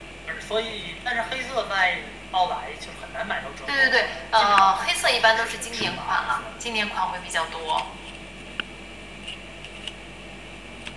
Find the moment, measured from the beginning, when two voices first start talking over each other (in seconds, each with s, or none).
3.7 s